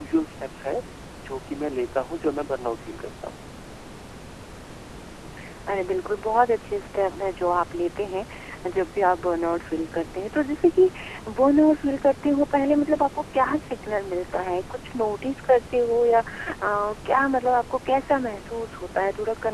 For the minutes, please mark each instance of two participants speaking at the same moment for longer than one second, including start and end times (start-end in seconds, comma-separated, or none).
none